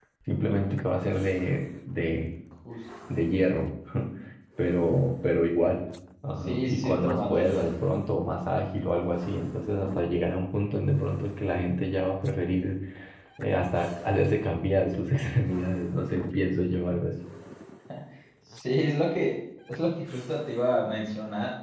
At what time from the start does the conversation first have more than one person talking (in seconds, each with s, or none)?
6.5 s